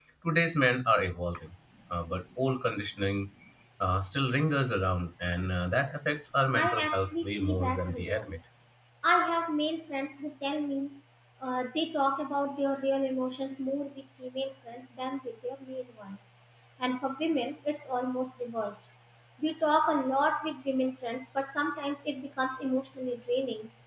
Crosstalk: present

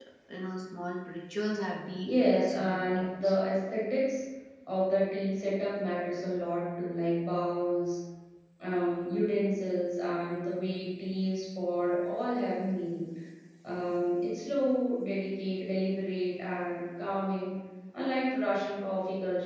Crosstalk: present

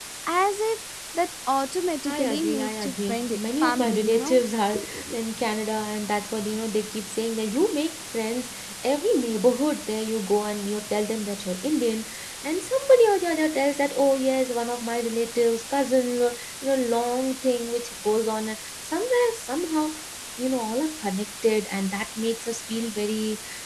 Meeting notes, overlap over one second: present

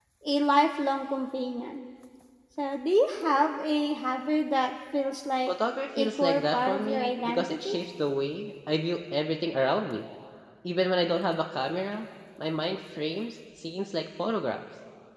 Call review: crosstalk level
present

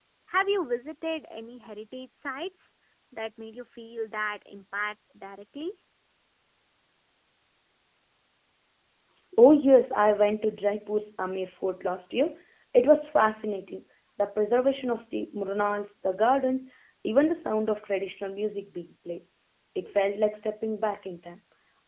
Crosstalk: none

